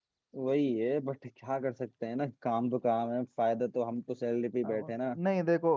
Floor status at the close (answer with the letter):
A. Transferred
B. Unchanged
A